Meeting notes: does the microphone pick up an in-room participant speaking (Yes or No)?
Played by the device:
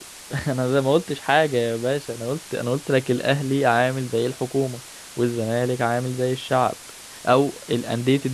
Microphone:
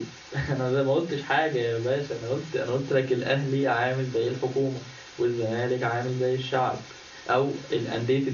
No